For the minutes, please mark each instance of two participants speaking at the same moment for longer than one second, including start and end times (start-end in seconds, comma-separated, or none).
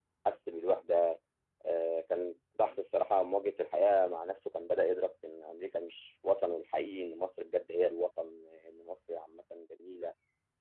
none